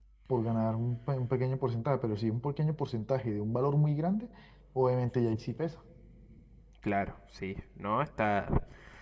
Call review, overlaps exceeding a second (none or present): none